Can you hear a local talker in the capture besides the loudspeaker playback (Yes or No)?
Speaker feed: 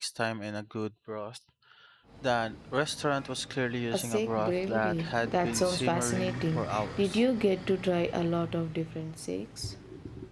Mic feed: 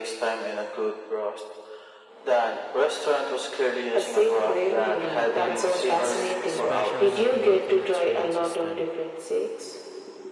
Yes